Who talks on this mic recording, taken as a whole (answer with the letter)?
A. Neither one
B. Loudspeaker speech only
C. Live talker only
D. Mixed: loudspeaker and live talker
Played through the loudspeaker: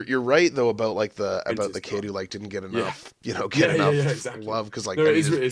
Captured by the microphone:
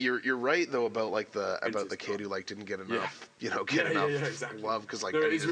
B